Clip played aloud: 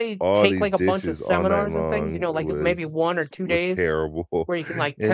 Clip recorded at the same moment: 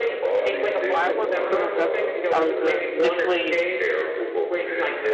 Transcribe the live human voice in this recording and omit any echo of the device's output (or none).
I went for criminal justice. I was uh, initially